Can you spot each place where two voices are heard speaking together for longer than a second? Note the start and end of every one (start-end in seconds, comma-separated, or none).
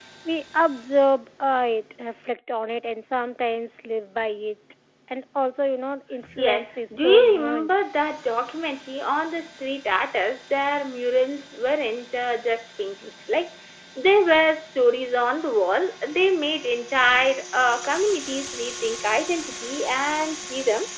6.4-7.9